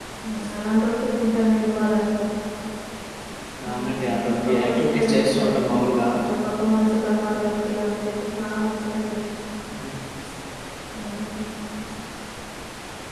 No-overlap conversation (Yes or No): No